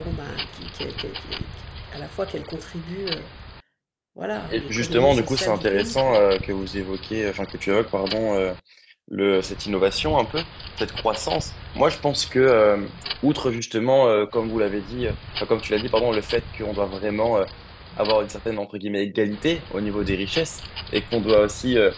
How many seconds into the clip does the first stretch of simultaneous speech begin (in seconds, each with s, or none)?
4.5 s